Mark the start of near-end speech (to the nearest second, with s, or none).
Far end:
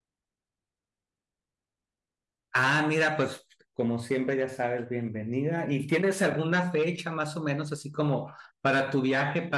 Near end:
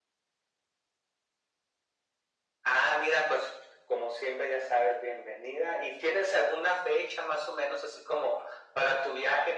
none